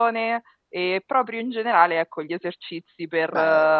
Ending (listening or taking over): listening